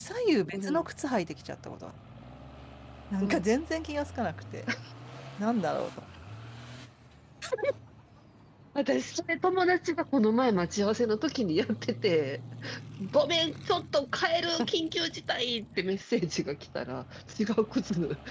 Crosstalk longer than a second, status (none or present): none